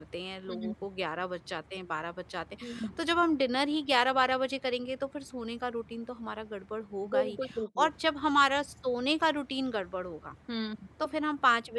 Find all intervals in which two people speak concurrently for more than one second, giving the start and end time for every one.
none

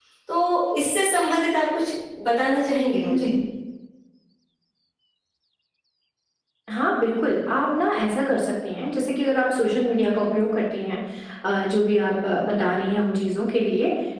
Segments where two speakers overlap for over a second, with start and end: none

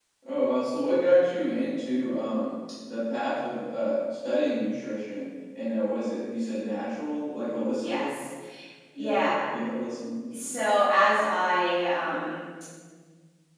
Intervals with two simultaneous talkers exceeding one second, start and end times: none

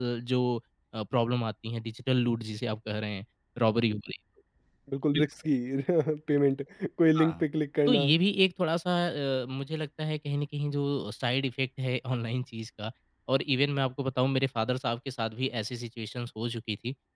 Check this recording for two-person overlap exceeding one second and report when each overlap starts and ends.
none

